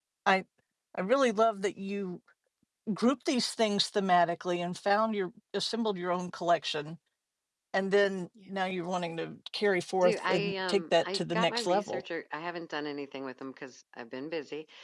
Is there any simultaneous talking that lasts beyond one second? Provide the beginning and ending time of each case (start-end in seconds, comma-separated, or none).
10.0-12.0